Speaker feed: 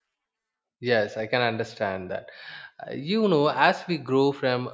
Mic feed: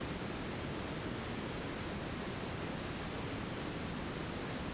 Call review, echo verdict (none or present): none